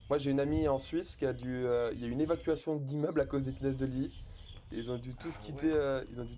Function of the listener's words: listening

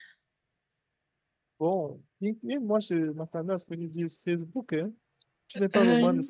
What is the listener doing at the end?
listening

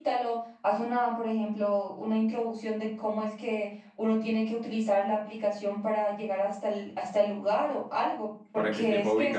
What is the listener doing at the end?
taking over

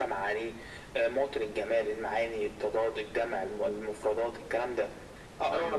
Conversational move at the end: listening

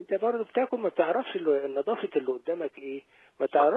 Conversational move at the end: listening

